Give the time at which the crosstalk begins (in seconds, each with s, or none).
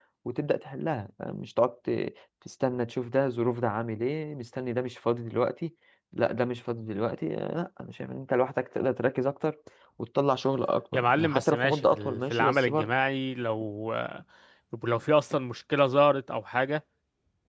10.9 s